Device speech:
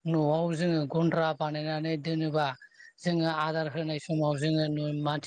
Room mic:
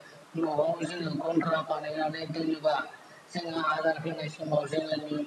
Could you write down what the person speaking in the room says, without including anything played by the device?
none

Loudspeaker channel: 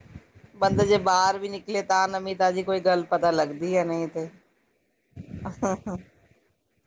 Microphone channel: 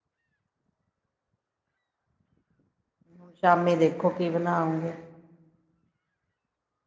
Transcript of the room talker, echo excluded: ਹੁਣ ਸ਼ਾਮੀ ਦੇਖੋ ਕੀ ਬਣਾਉਗੇ?

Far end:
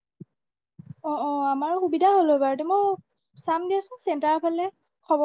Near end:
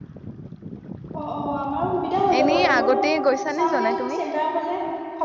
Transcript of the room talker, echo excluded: এনেই আগতে গৈছানে জনাই তুমি

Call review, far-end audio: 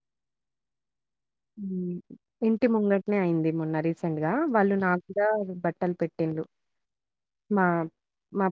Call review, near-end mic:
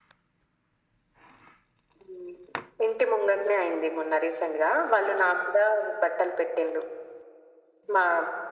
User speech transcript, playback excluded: none

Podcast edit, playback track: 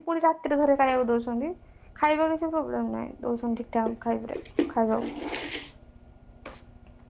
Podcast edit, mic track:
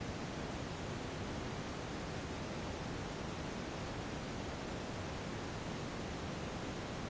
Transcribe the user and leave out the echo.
none

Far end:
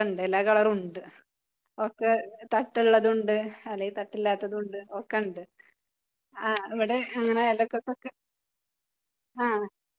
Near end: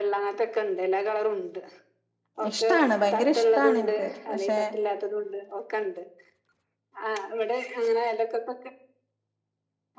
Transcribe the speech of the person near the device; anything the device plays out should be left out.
ഇഷ്ടാണ് ഭയങ്കര ഇഷ്ടാണ് എനിക്ക് പക്ഷെ.

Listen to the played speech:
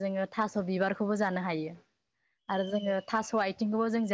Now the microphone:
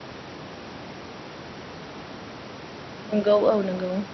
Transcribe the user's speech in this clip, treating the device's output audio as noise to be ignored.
नोंगौ औ नोंगौ

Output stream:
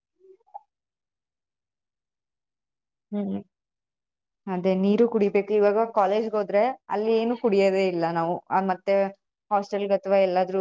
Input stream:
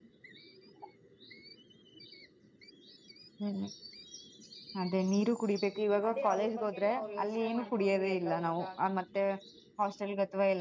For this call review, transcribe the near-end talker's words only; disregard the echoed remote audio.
ಅದೇ ಅವ್ರ ಬಗ್ಗೆನೆೇ ಅವರು ಯೋಚನೆ ಮಾಡ್ಕೊಂಡು ಎಲ್ಲಾ ಊಟ

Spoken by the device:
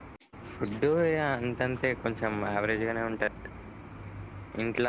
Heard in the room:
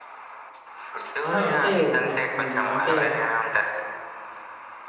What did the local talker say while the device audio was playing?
ఆహా అంటే ట- అంటే

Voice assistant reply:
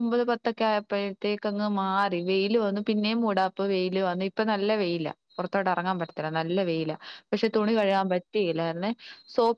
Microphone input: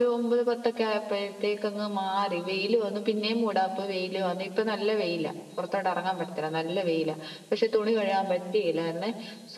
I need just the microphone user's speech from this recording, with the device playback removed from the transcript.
none

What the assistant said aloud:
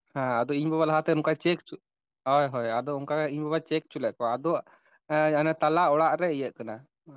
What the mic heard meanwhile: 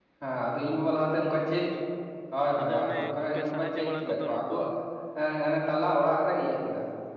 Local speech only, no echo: ᱟᱫᱚ ᱚᱱᱮ ᱠᱚᱯᱮ ᱥᱟᱦᱟᱡᱡᱚ ᱵᱟᱲᱟ ᱠᱚᱫᱚ ᱱᱩᱠᱩ

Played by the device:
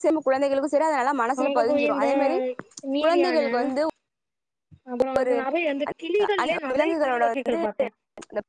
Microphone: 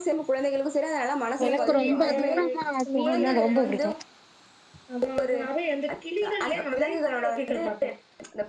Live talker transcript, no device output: எனக்கு ரொம்ப தூரமா போனா ரொம்ப புடிக்கு

